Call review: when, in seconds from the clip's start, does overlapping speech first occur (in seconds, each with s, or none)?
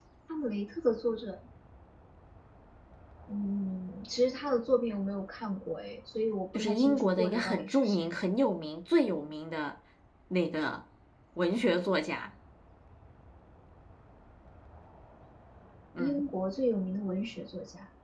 6.6 s